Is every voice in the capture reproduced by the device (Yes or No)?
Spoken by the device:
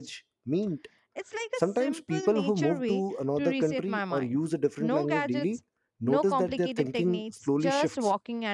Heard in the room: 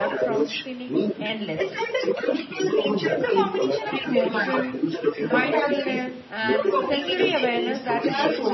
No